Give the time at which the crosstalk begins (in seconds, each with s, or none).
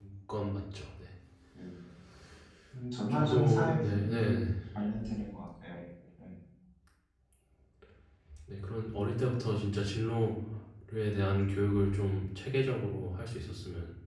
3.1 s